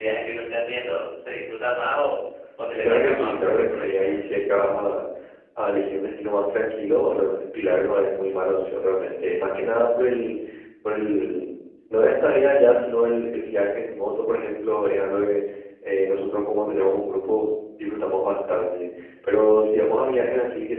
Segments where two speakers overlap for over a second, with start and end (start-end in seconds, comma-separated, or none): 2.8-4.2